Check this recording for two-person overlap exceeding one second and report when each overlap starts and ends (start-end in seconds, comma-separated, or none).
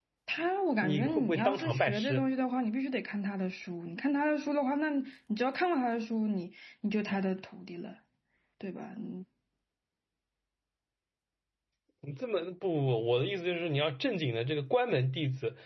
0.8-2.3